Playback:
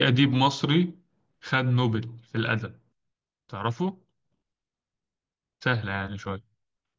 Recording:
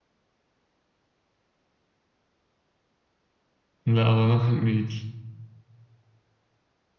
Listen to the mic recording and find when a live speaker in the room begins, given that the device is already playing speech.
3.9 s

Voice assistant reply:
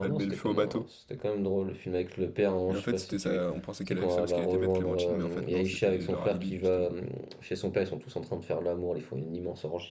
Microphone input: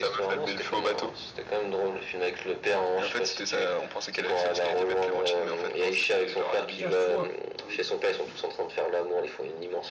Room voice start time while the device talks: 6.8 s

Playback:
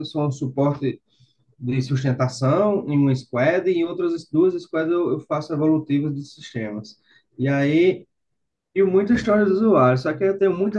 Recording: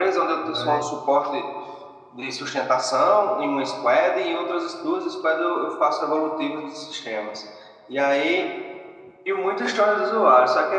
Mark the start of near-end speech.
0.4 s

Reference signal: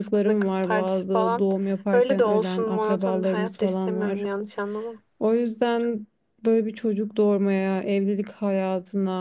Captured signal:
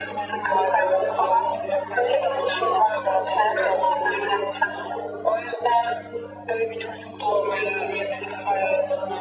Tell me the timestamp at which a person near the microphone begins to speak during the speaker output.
none

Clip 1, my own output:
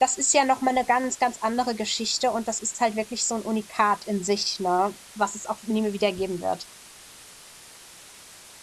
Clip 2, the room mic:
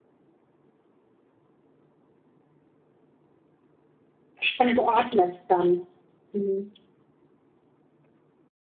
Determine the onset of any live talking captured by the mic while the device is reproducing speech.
4.4 s

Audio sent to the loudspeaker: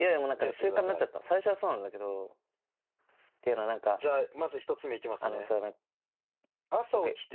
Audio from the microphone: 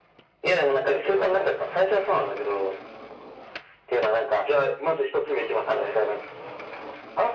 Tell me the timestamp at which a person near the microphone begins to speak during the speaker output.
none

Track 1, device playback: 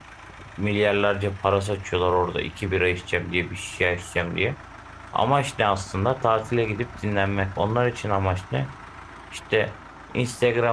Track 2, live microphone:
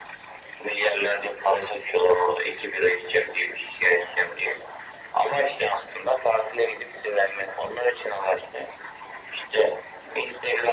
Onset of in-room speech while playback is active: none

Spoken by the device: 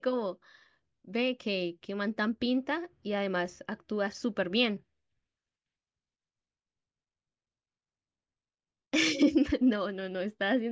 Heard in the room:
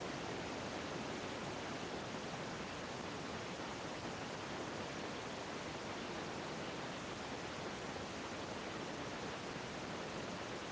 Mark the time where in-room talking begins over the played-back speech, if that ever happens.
none

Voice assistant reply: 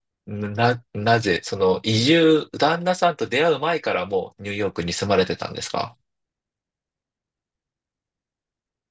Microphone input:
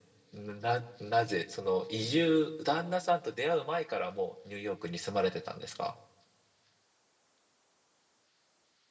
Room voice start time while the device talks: none

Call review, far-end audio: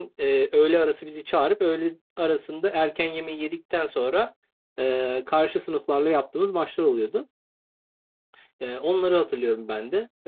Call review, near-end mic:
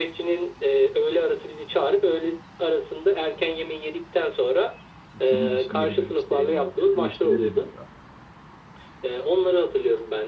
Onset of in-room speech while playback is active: 5.2 s

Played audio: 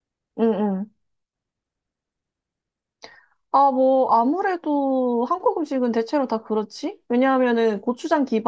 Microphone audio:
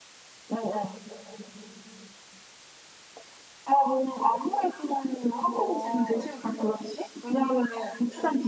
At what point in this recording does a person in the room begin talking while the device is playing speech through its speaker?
5.5 s

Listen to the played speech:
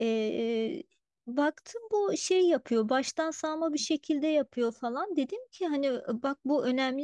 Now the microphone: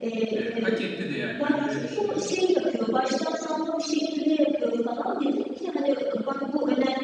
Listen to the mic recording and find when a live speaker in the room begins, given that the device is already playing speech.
0.3 s

